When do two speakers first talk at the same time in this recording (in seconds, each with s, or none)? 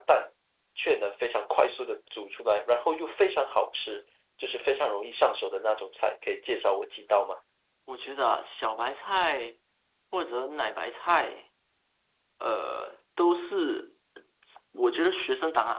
none